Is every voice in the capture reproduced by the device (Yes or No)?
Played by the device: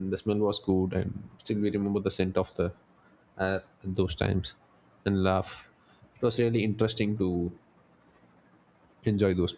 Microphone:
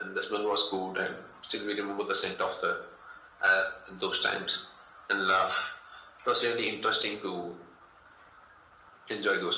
Yes